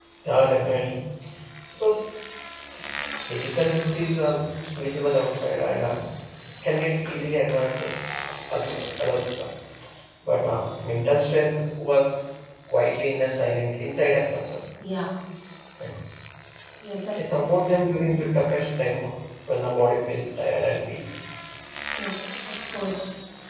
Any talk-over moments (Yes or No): No